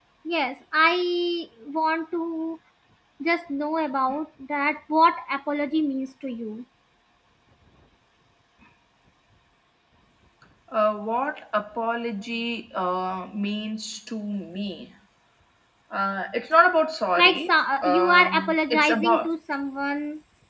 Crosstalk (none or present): present